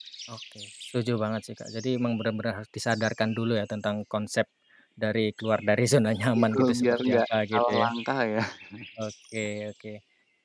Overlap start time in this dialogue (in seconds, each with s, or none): 6.3 s